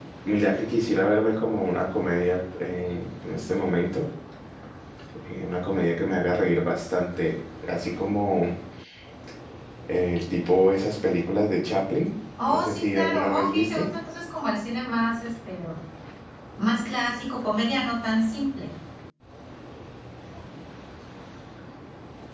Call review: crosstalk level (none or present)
present